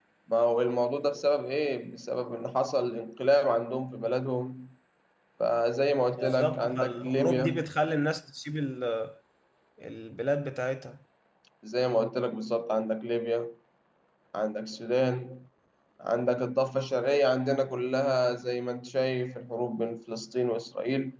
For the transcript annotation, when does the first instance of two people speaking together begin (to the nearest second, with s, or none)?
6 s